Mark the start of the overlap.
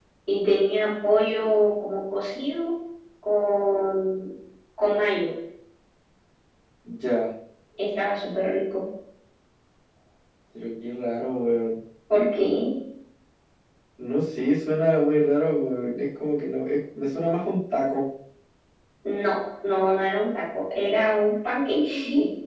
none

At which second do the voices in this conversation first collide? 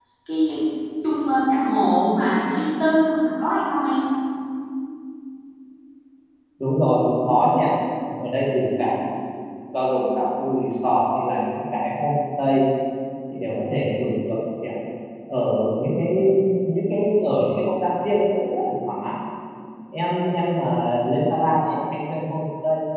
none

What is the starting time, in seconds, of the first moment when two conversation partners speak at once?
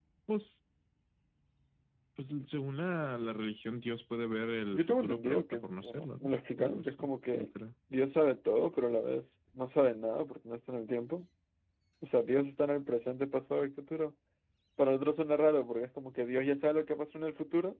4.7 s

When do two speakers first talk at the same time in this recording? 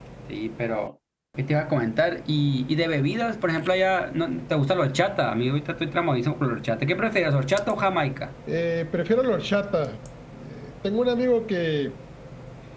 none

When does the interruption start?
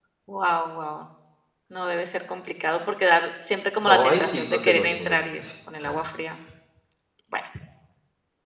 3.8 s

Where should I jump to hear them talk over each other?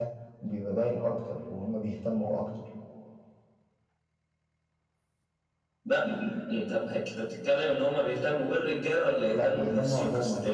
9.3 s

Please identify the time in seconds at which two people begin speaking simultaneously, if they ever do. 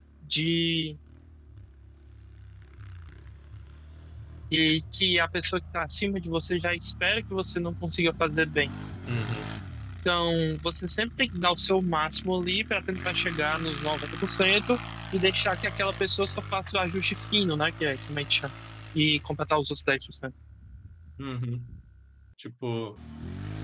none

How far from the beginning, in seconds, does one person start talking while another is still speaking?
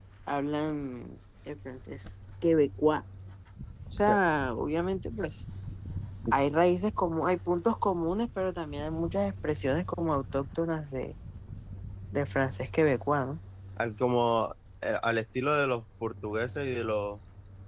none

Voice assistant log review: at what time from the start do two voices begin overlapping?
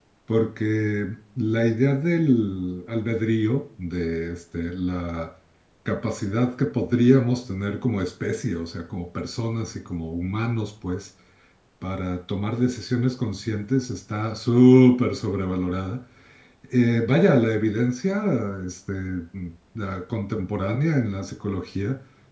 none

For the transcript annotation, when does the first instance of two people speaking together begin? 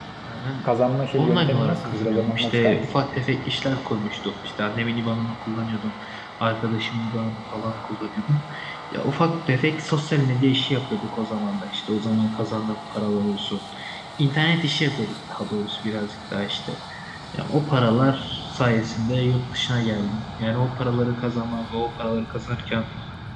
1.2 s

